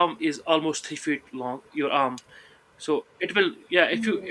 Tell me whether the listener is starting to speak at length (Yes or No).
No